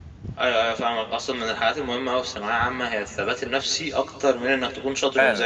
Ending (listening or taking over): taking over